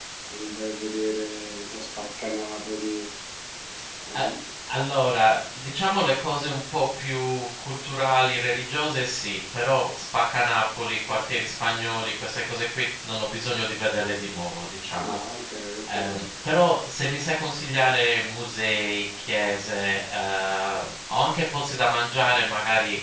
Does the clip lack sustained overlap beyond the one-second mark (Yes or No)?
Yes